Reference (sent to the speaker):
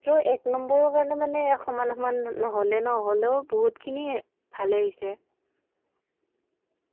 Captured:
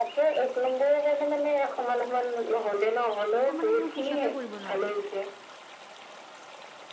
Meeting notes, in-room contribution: present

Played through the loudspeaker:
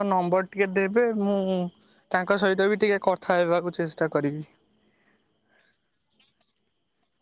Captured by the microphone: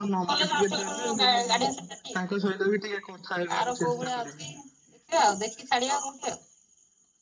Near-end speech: present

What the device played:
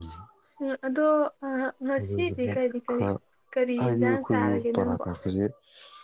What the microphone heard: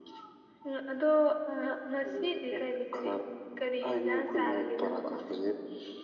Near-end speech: none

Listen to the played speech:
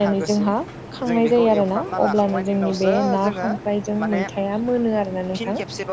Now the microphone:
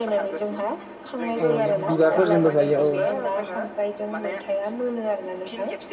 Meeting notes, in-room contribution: present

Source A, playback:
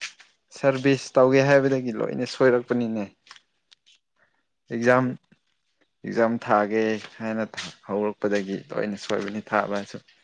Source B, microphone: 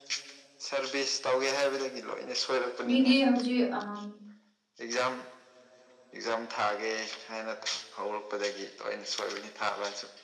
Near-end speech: present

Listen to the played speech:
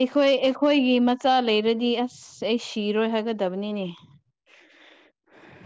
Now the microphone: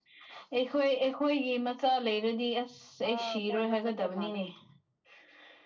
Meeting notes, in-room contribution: present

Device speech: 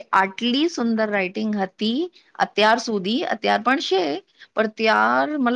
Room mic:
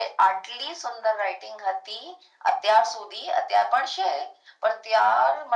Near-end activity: none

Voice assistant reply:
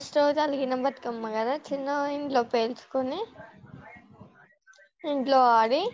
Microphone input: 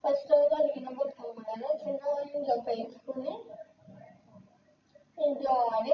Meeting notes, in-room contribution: none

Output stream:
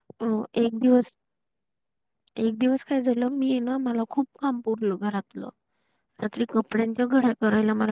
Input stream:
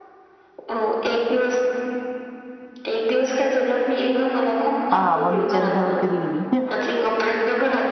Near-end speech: present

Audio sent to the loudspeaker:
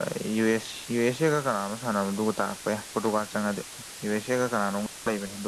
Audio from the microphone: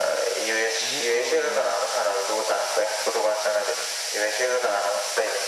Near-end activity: present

